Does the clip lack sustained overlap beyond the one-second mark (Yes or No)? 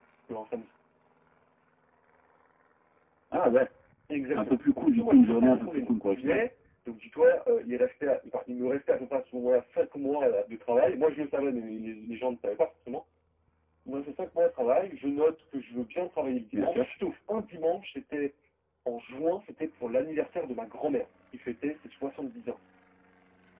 No